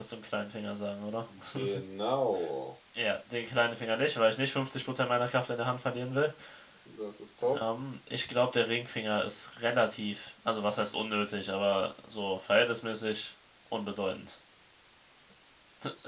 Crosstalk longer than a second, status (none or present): none